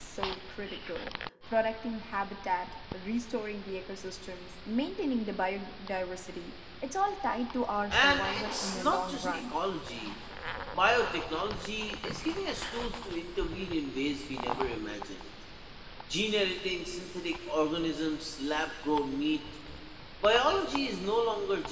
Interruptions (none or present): present